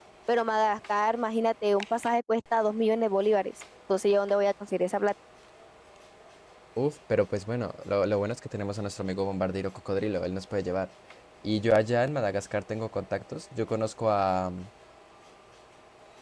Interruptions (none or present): none